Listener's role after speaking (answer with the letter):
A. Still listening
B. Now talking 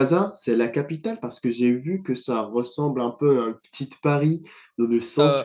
A